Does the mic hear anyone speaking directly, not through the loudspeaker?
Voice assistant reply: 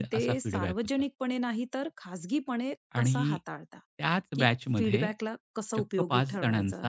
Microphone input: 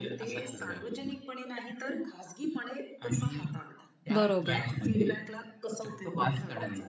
Yes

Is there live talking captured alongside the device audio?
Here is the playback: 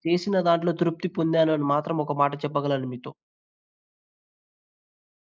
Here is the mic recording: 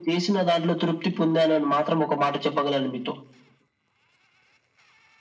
No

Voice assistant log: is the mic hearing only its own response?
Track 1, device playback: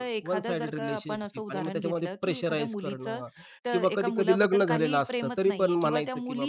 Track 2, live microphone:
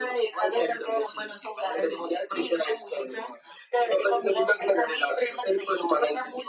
Yes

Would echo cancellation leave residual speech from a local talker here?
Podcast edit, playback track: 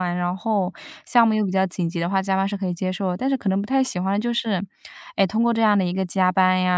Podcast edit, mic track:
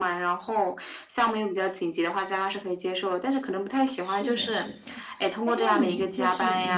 Yes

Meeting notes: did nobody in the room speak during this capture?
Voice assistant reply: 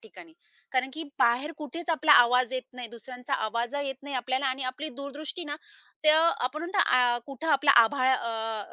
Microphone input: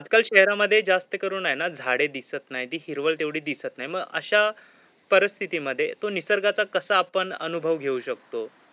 No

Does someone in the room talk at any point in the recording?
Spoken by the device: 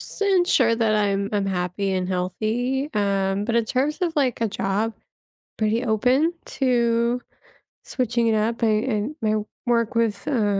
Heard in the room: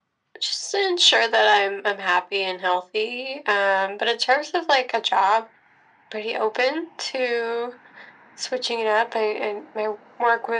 No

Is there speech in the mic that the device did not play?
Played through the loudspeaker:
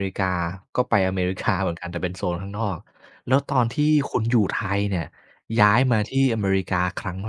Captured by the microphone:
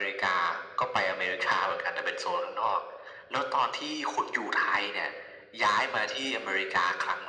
No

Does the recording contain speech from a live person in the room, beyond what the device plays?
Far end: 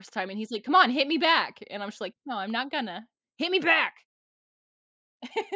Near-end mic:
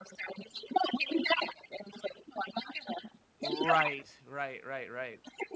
Yes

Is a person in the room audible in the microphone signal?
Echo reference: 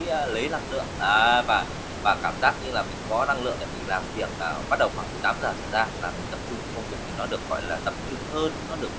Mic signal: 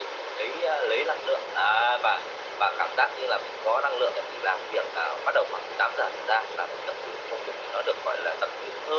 No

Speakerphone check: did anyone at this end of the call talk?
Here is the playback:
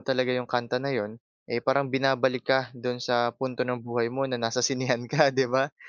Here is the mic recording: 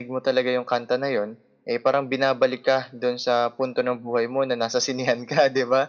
No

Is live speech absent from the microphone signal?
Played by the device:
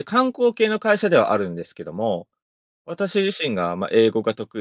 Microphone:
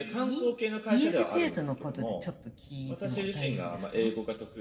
No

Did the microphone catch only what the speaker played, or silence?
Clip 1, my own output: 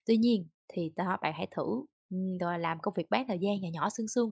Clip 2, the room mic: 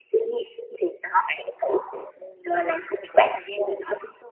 Yes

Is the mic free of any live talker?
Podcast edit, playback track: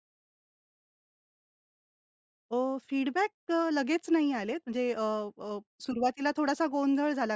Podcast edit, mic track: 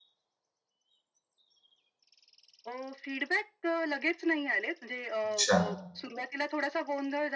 No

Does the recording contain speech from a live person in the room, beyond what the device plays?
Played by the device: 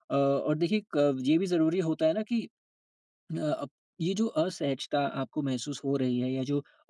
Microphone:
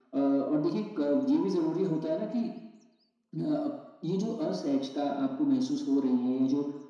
No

